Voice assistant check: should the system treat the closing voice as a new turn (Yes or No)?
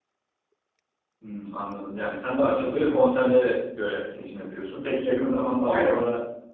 No